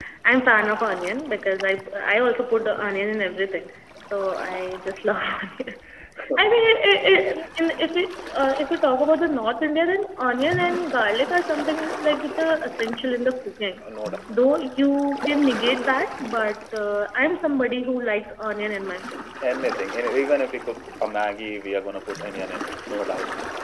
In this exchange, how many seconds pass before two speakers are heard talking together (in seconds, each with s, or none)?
none